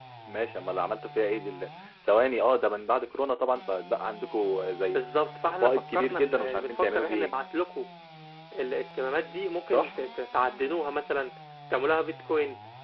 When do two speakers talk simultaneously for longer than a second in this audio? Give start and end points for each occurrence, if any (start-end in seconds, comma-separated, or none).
5.6-7.4